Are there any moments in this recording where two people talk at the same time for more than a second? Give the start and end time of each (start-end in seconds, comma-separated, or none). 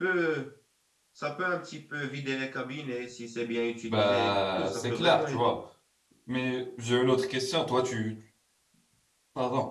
3.9-5.5